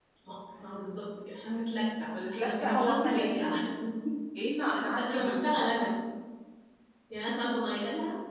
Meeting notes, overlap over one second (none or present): present